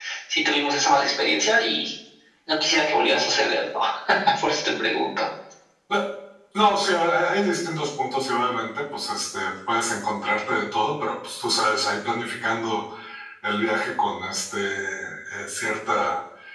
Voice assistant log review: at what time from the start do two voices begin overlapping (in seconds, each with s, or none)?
none